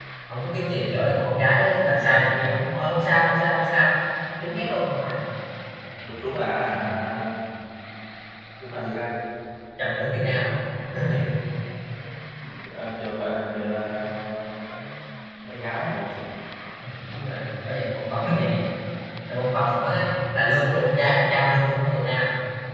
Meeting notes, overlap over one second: none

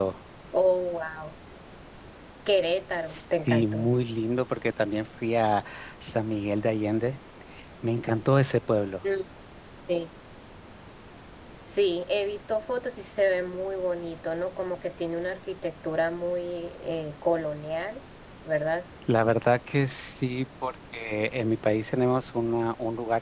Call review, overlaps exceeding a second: none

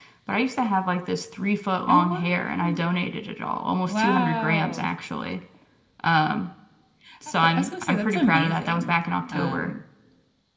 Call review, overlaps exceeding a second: present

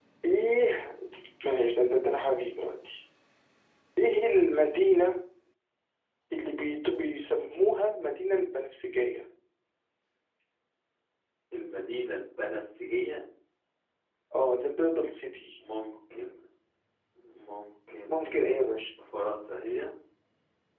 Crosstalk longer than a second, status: none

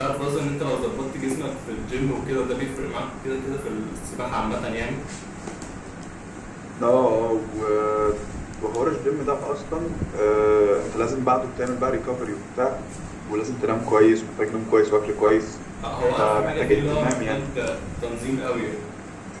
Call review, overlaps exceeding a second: present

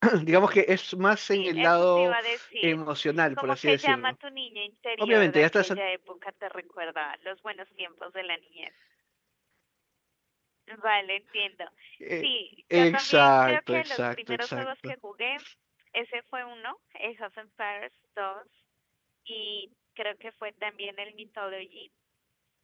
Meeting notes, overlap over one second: present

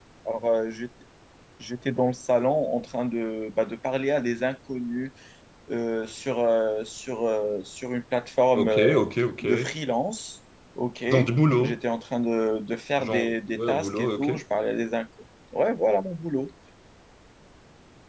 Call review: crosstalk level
present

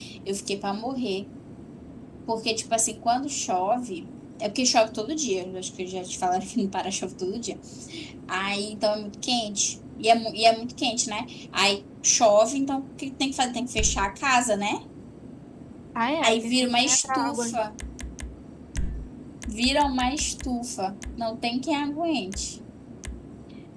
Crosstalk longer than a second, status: present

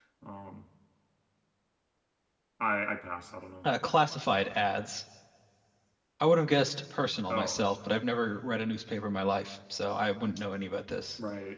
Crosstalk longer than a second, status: none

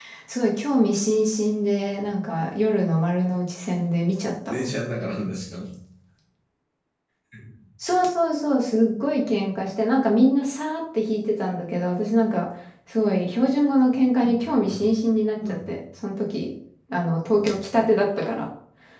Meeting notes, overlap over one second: none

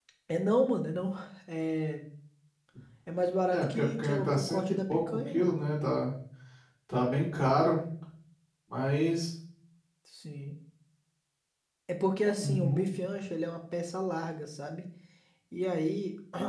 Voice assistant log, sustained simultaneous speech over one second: present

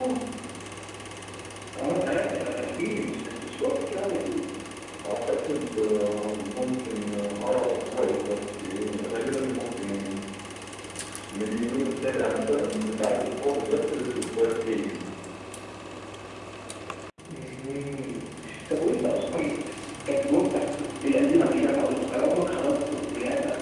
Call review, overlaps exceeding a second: none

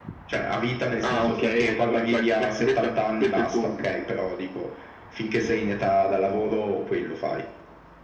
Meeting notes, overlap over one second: present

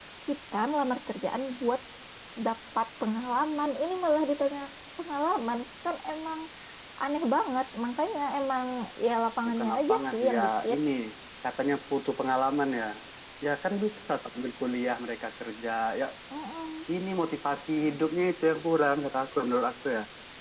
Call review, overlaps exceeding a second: present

